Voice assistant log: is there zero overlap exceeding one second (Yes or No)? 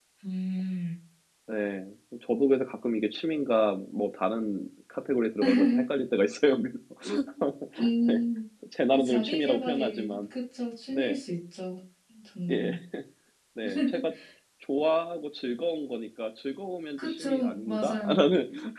No